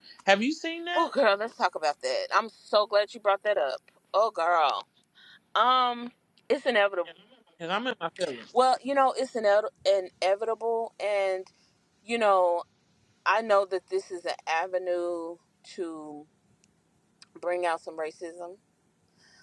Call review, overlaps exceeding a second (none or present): none